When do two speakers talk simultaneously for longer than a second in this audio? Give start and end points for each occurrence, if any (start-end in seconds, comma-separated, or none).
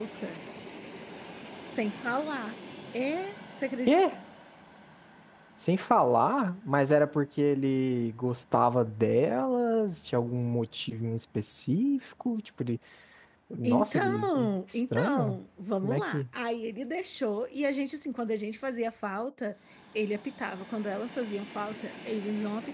13.6-15.4